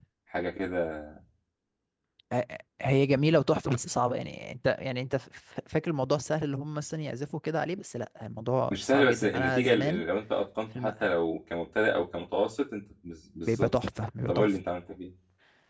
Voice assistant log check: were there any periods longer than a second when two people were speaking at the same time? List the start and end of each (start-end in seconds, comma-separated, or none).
8.7-10.0